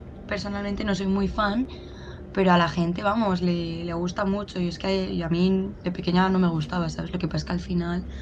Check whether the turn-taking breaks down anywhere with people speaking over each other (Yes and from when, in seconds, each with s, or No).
No